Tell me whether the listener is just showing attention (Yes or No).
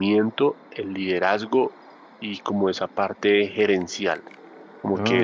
Yes